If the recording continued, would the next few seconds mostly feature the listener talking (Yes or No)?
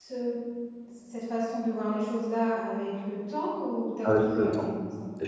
Yes